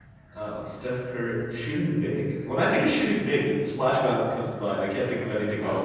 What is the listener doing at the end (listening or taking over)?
taking over